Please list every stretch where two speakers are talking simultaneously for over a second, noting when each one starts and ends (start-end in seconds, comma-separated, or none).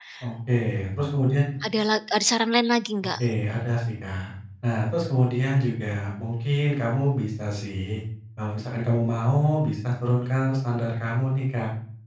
none